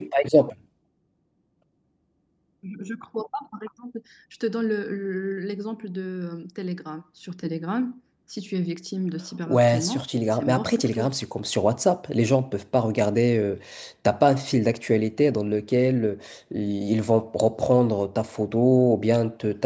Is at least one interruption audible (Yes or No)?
Yes